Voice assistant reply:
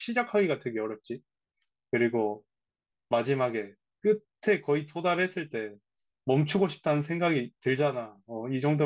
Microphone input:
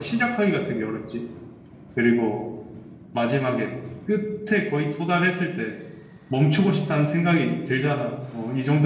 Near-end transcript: none

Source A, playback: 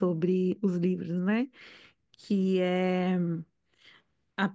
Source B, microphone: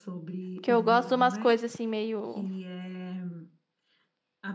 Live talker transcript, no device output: Porque eu gosto de umas coisas assim, meio.

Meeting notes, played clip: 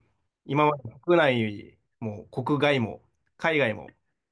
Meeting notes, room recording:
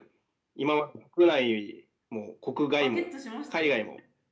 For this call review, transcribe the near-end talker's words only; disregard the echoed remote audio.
あ、ゲットしましたよ。

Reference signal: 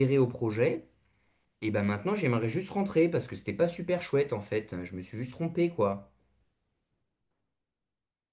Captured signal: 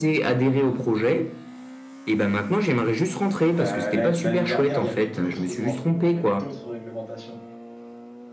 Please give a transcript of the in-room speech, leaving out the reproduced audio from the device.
euh, l'a- l'année dernière, il y avait d'autres lois, il y avait d'autres réglementations.

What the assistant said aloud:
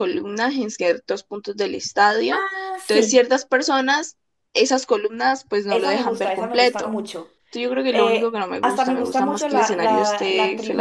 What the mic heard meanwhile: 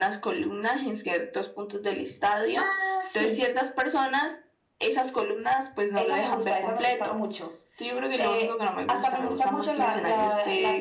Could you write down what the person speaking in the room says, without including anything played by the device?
none

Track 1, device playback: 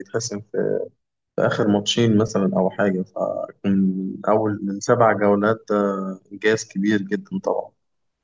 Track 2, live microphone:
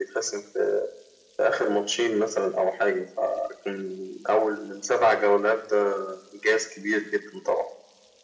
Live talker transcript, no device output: none

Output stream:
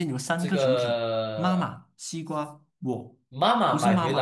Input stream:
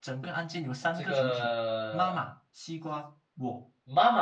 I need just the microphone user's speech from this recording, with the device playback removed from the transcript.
none

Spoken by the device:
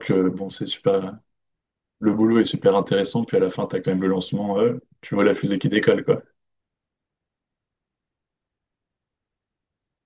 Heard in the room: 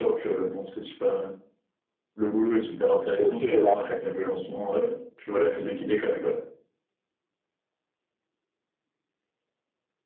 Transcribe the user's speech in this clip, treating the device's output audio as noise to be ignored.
Et aussi, j'ai l'après.

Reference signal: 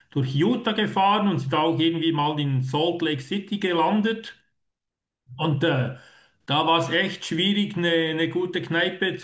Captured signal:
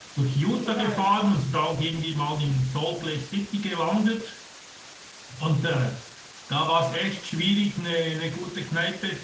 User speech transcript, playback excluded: genau, ja.

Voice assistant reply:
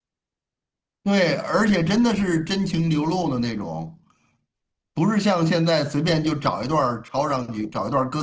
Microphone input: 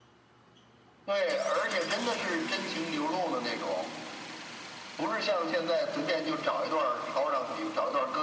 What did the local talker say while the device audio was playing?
none

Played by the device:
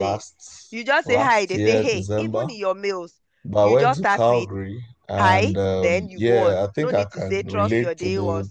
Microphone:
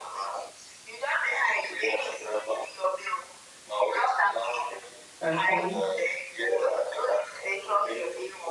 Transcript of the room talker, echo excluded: Okay.

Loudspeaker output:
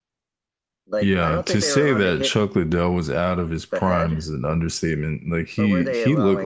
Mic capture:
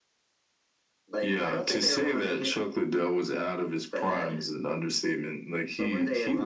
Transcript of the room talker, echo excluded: none

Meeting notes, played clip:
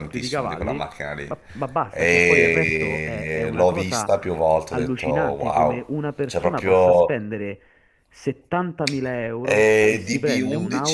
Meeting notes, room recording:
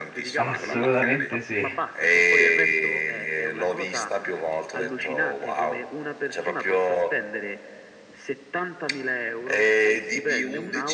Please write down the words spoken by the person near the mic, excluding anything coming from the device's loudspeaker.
Assolutamente sì.

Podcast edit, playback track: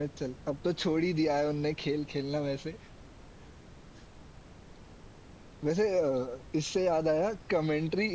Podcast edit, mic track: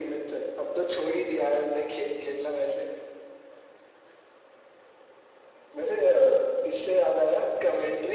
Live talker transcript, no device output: none

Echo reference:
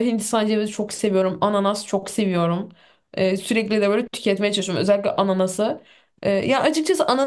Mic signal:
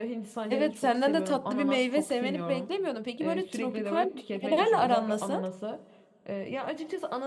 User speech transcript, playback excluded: Evet senden de tatlı bir meyve sevmeni beklemiyordum. Peki böyle tropikal meyvelerle aran nasıl?

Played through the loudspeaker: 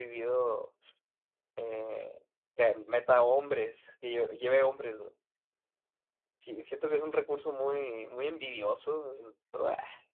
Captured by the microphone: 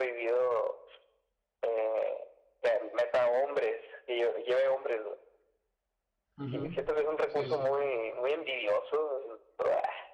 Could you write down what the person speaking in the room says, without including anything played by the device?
Ujú. Sí, sí.

